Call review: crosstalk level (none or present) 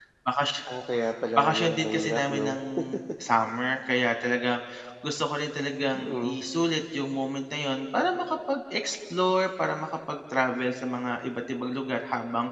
present